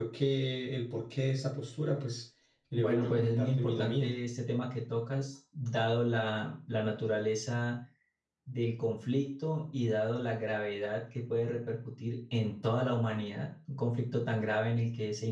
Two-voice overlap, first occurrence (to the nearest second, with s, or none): 3 s